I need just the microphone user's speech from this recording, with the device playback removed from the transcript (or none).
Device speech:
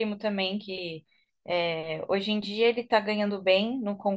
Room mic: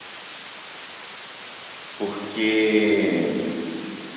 Porque